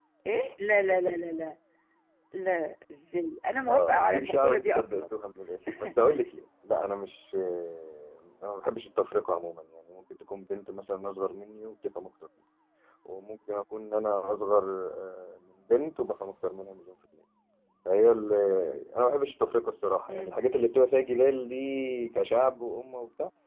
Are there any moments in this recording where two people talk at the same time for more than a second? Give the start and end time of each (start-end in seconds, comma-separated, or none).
3.7-5.0